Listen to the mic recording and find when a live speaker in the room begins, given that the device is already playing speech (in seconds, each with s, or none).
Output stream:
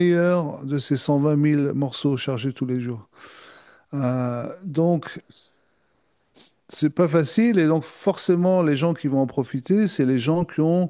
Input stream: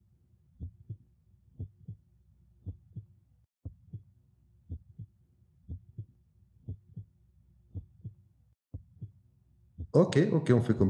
9.9 s